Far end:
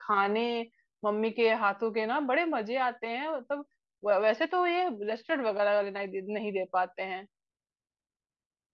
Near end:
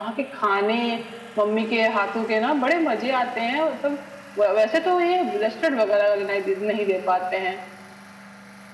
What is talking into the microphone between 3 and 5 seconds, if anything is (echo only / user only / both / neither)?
echo only